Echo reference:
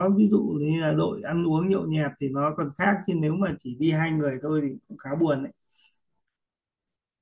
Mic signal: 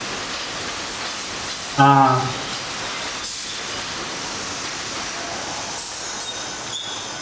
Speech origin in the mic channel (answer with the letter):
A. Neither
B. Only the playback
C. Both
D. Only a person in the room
D